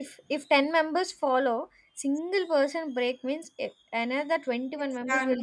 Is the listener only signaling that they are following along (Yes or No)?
No